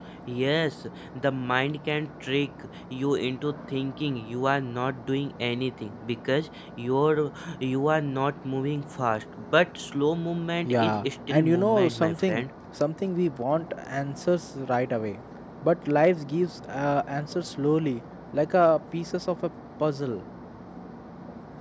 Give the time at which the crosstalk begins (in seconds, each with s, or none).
10.6 s